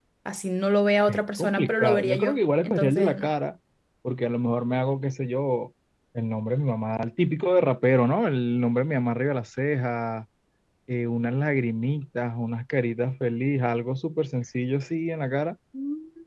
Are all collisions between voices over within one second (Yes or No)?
No